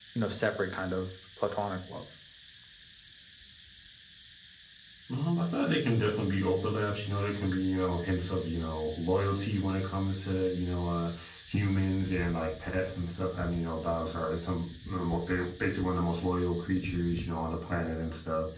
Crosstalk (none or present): none